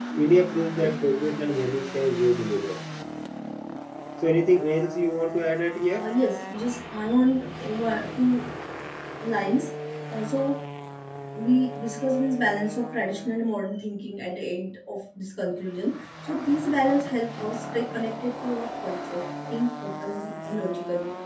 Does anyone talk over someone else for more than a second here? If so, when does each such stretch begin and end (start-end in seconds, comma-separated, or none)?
none